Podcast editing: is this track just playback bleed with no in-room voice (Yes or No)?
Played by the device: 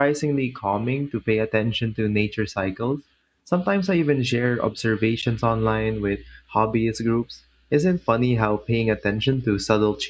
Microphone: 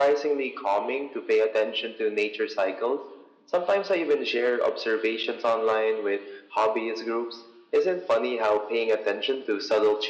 Yes